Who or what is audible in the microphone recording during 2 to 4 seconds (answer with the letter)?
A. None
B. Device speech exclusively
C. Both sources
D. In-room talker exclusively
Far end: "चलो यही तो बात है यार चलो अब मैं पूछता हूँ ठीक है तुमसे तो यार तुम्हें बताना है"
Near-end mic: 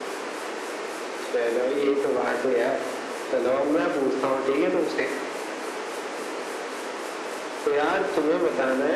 B